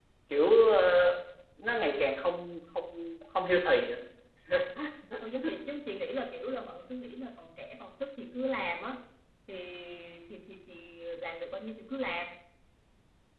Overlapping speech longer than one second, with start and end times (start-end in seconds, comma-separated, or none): none